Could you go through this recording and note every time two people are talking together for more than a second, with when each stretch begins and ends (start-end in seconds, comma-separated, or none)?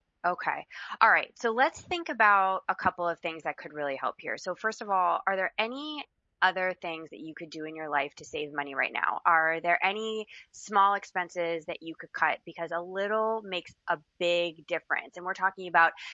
none